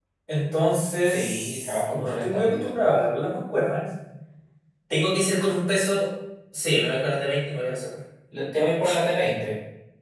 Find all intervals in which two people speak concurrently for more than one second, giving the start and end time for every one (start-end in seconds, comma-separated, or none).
1.0-2.7